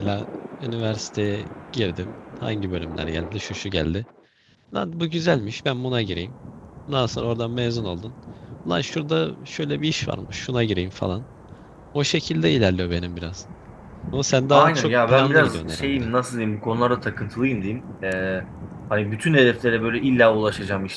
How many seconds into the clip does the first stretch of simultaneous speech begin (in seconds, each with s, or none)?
14.5 s